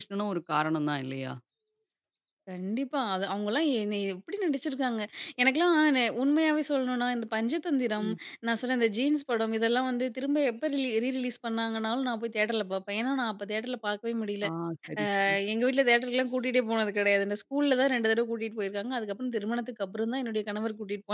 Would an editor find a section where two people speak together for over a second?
No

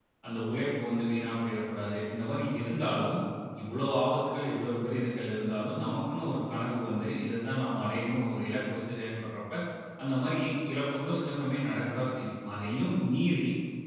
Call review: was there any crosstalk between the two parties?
No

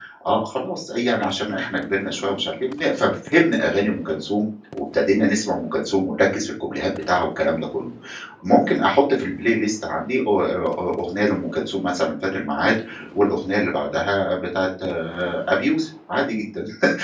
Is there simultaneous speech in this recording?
No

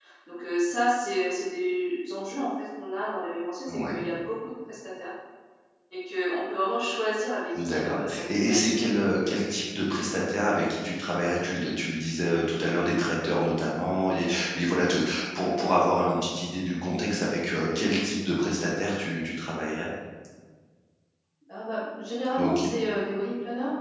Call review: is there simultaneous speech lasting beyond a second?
Yes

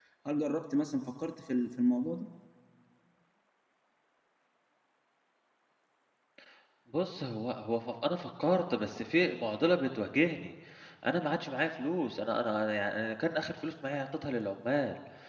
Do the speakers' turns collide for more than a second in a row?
No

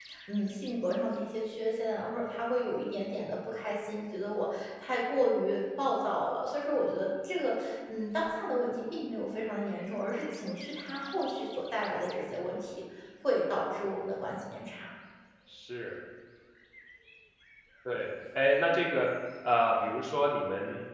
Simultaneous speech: No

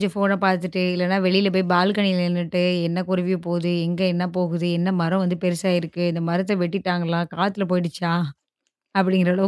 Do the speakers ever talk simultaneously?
No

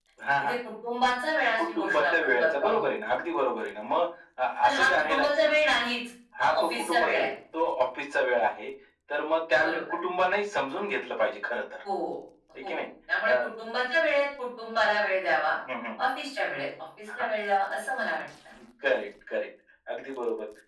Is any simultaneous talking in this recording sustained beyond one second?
Yes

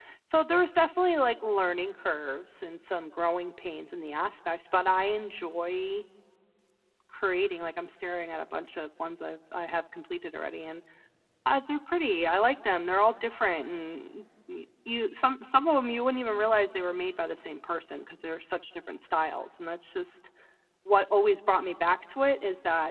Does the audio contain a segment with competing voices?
No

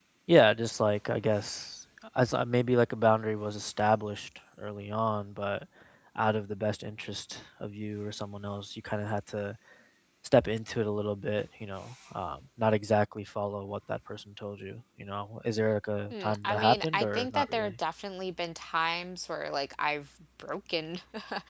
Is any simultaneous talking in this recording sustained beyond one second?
Yes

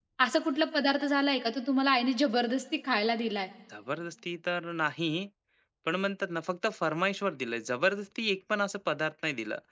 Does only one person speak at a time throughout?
Yes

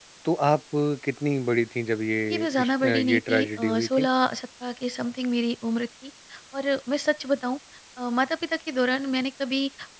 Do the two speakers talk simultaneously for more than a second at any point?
Yes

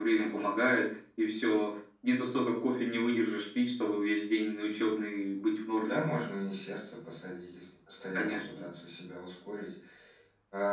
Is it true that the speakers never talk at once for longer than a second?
Yes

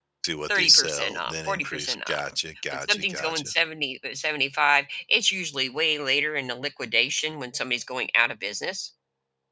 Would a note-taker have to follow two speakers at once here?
Yes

